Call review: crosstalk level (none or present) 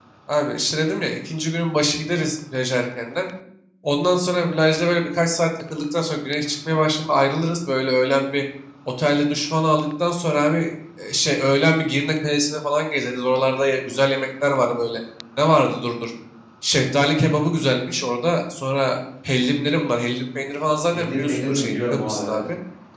present